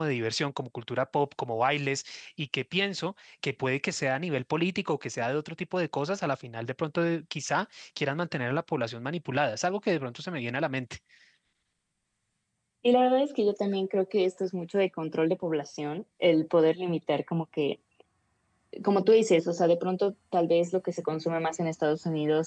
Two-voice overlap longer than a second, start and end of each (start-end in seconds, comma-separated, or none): none